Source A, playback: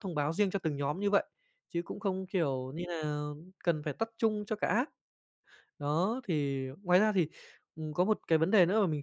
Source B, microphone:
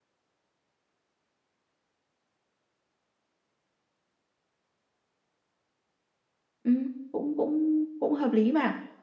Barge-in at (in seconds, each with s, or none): 6.6 s